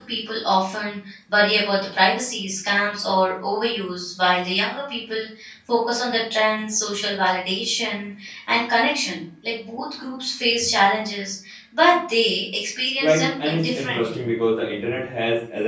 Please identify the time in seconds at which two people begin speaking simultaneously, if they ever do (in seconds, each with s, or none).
13.0 s